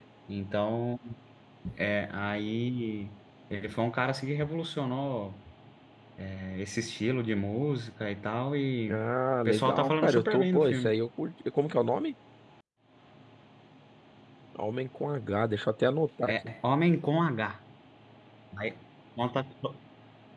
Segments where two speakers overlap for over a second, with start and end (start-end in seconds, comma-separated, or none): 9.4-11.0